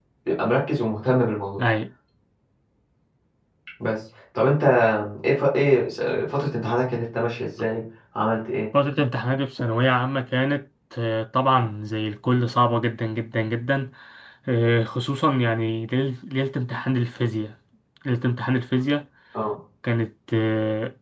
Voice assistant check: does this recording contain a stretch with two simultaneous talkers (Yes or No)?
No